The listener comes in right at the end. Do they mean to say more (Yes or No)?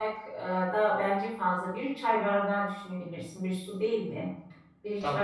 No